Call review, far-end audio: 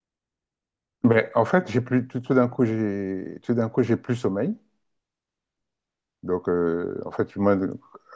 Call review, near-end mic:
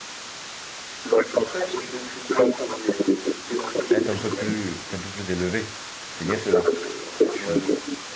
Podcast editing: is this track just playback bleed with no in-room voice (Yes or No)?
No